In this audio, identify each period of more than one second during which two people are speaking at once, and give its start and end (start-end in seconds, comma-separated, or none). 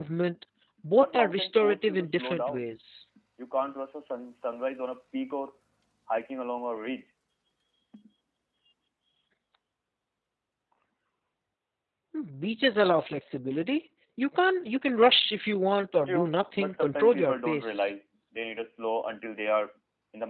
1.0-2.7, 16.1-17.9